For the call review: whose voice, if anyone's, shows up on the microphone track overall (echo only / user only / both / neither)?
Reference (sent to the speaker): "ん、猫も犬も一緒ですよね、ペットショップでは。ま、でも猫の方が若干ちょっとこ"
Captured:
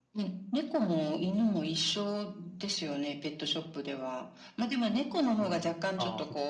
both